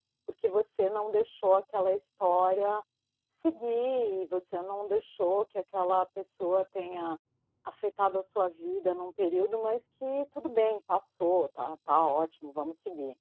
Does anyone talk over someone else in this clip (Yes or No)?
No